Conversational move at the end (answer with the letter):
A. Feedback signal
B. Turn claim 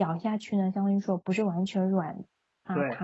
B